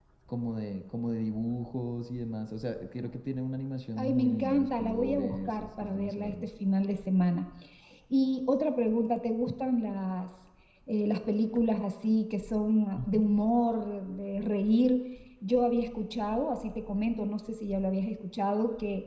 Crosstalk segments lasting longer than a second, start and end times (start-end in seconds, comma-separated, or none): 4.0-6.3